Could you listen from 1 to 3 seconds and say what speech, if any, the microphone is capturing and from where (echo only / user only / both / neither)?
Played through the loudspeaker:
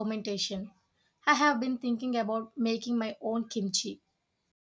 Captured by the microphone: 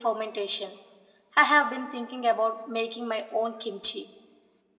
echo only